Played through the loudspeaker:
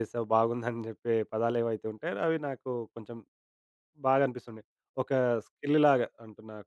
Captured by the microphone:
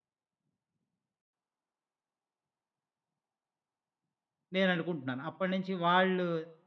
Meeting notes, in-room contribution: present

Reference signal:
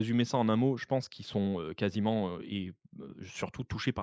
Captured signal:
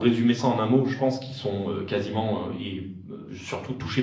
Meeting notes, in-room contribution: none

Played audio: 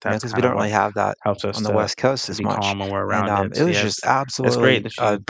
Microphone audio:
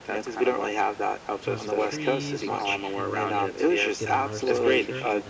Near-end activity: present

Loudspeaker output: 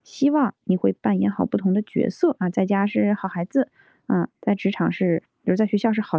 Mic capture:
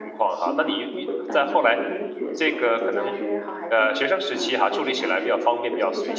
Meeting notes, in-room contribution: present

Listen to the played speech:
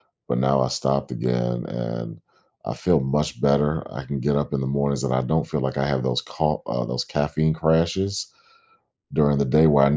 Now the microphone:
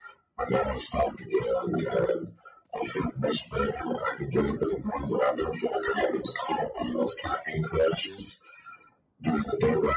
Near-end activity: none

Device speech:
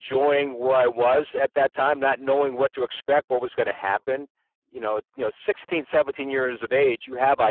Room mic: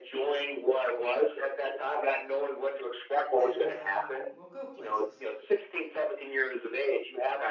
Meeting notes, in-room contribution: present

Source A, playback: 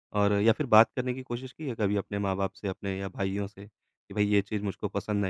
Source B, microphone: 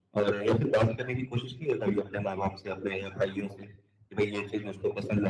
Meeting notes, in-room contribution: none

